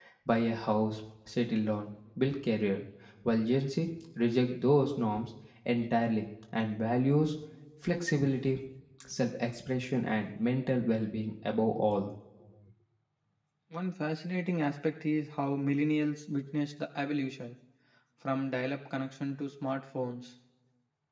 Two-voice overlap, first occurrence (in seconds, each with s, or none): none